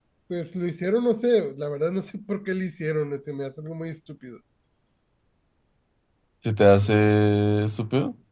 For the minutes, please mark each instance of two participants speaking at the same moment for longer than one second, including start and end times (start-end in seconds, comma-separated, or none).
none